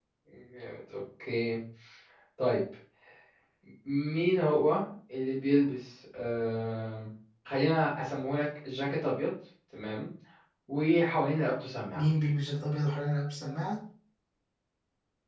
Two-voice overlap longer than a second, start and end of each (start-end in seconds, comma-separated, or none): none